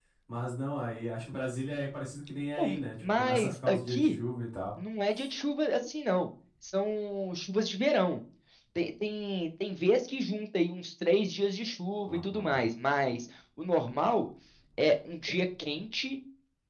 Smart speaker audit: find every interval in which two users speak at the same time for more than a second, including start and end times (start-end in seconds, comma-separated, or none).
2.6-4.2